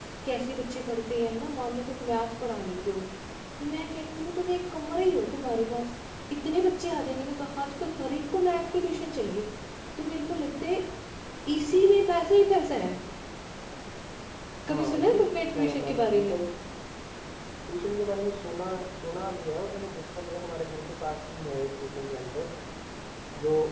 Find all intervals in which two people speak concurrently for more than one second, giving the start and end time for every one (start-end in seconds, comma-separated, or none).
14.7-16.3